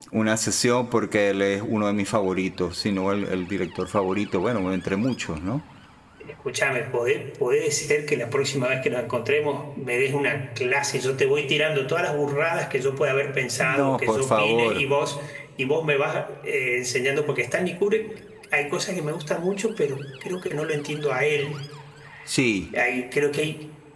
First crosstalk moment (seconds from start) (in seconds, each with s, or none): 13.6 s